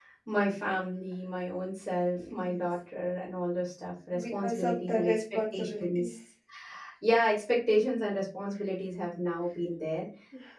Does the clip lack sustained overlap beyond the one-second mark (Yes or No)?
No